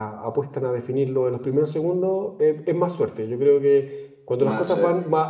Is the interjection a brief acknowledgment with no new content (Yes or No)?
Yes